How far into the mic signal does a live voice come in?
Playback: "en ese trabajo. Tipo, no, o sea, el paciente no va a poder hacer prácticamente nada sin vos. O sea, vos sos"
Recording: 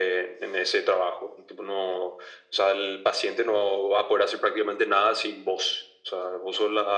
none

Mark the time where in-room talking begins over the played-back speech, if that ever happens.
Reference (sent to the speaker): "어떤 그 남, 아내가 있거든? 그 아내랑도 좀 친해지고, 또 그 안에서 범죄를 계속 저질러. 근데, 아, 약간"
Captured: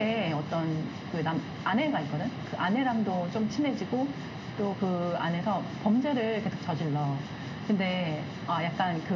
none

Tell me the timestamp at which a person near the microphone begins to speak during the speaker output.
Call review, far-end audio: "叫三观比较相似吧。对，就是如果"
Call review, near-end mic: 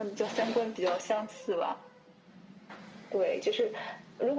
none

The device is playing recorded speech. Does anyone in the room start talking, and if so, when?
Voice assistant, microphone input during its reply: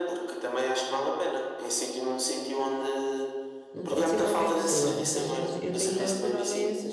3.7 s

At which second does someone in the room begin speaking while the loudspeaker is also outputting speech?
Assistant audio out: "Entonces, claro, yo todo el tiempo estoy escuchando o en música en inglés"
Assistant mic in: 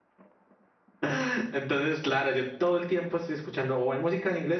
none

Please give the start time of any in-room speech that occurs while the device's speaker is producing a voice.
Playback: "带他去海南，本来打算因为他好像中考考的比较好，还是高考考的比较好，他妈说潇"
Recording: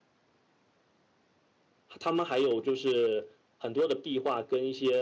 2.0 s

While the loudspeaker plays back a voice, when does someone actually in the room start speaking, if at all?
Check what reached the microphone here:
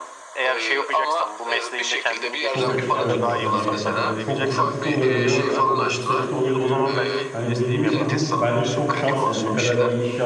2.5 s

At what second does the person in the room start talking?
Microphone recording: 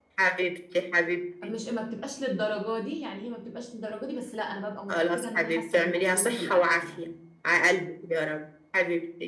1.4 s

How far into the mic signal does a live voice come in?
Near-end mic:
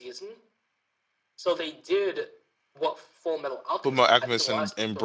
3.8 s

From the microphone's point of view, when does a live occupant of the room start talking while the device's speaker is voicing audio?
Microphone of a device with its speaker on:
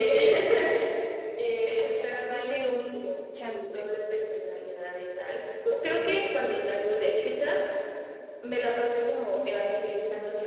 1.6 s

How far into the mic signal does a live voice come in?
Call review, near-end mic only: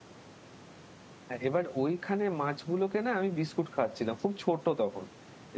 1.3 s

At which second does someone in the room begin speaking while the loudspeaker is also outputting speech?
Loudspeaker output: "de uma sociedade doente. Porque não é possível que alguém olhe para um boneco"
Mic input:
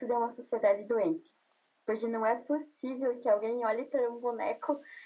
none

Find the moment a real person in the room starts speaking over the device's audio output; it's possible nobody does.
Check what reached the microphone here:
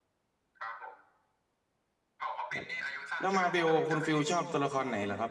2.5 s

